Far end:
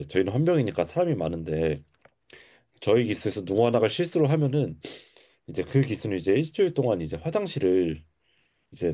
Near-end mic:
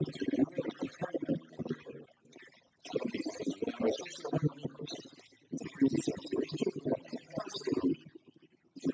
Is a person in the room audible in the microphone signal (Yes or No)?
No